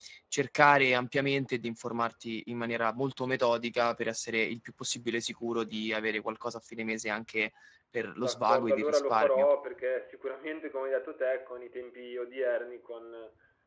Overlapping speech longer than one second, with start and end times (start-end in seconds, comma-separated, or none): 8.2-9.4